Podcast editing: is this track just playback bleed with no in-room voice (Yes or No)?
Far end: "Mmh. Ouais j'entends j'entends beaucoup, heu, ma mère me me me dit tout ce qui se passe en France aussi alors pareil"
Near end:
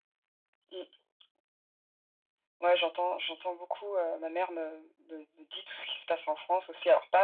Yes